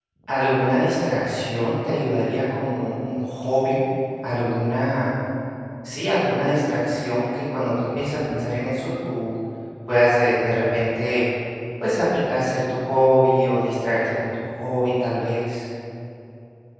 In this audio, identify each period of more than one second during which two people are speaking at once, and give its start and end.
none

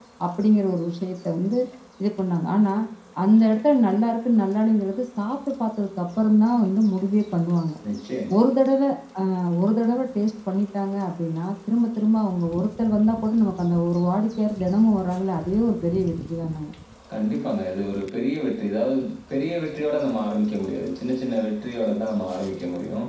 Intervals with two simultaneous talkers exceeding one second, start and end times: none

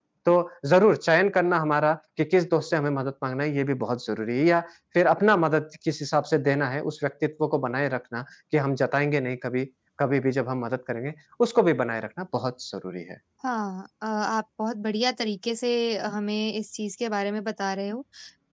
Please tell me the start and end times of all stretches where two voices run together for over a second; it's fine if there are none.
none

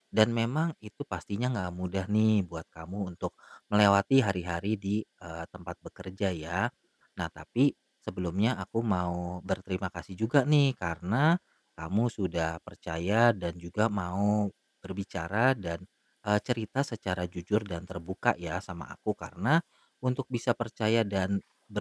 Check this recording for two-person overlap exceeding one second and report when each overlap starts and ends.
none

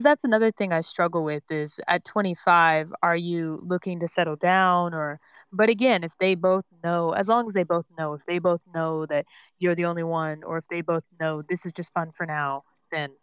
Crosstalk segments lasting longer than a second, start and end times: none

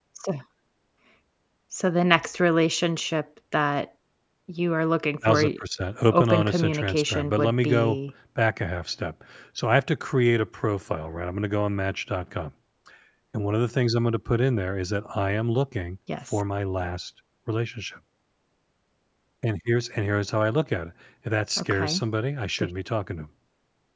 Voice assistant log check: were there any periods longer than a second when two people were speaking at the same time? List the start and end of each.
6.1-8.0

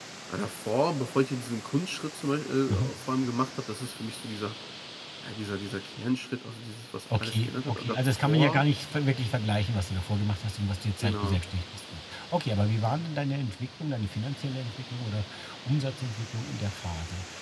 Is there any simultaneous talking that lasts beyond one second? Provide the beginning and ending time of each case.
7.2-8.6

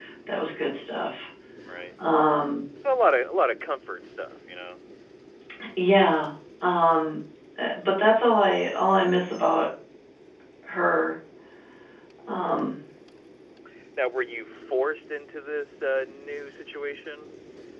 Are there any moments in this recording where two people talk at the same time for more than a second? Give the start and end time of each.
none

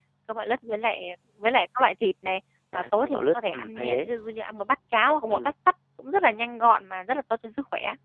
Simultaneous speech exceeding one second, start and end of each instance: 2.7-4.1

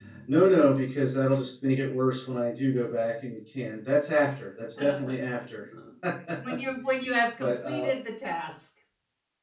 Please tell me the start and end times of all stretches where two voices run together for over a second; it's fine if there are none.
none

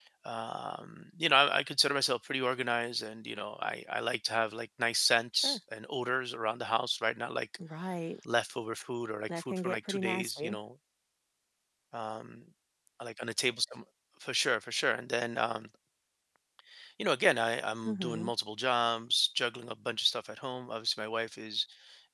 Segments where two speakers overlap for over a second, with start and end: 9.4-10.6

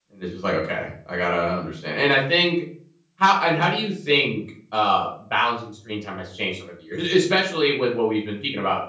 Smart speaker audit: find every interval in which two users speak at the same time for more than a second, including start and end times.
none

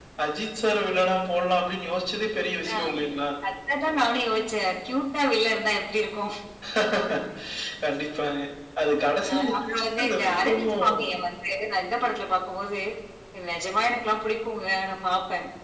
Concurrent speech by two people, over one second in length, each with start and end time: 9.3-11.0

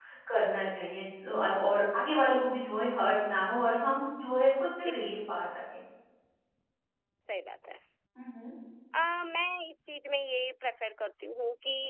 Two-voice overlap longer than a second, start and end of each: none

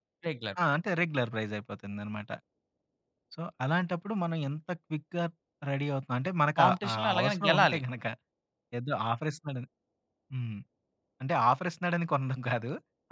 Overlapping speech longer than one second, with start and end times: 6.6-7.8

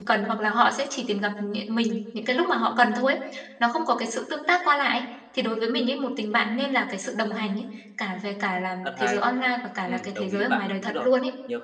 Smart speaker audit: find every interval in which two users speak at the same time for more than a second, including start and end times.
9.9-11.1

